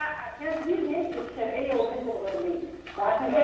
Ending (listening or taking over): listening